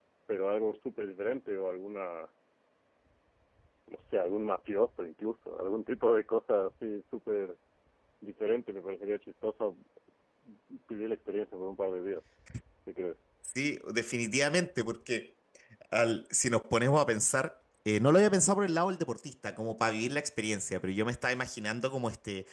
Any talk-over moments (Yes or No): No